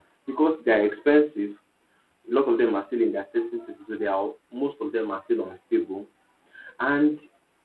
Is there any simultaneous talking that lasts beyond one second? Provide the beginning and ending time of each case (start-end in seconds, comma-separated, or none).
none